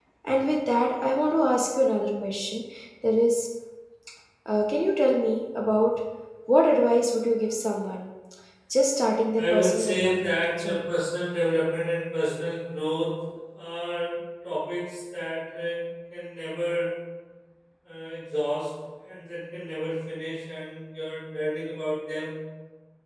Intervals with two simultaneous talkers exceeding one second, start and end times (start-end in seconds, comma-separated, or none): 9.3-10.9